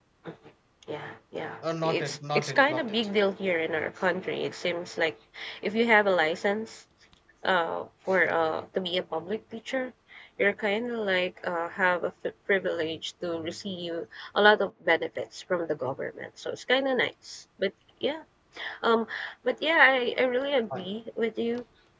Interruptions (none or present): present